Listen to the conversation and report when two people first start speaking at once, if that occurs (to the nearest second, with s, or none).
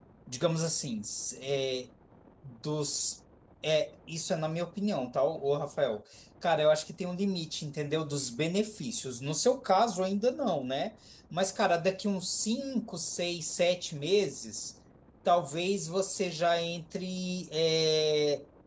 none